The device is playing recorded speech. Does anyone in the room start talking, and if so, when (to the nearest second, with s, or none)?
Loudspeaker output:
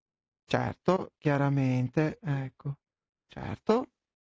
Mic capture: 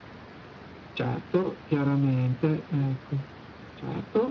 none